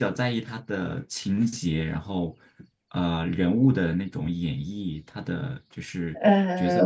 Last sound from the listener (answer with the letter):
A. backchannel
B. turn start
B